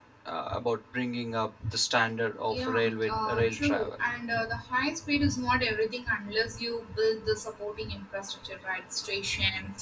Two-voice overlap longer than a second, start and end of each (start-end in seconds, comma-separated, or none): 2.5-4.1